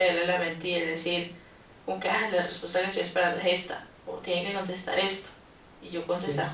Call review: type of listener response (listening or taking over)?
listening